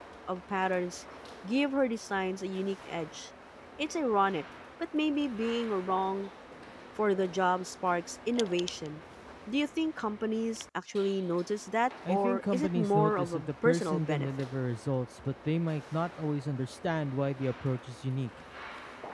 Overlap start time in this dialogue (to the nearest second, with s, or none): 12 s